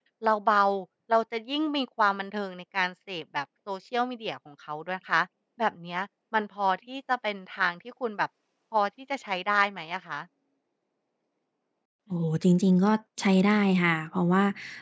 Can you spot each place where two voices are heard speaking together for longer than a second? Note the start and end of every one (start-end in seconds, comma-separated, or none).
none